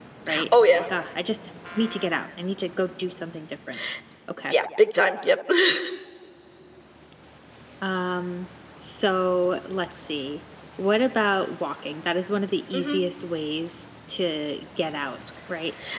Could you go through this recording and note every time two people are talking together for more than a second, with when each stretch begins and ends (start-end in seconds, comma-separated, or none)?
none